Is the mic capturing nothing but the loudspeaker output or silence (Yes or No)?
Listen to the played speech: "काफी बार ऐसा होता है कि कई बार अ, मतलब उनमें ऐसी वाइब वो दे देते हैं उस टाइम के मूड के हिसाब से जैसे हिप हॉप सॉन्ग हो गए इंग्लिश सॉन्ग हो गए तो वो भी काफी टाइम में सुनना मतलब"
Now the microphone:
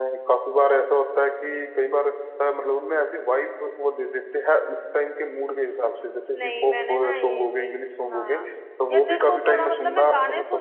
No